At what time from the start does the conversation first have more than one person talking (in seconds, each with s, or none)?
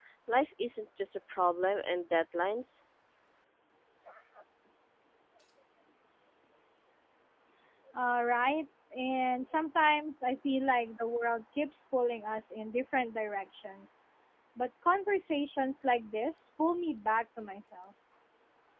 none